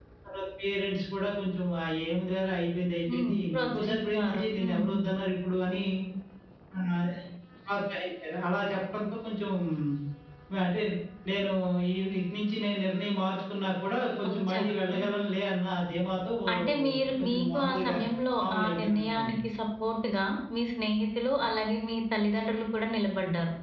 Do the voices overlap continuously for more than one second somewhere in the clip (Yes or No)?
Yes